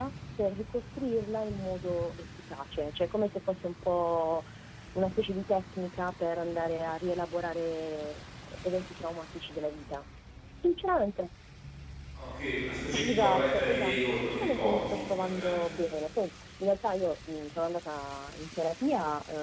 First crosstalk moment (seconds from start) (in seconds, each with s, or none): 12.9 s